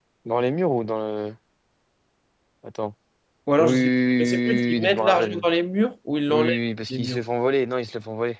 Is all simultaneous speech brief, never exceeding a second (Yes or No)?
No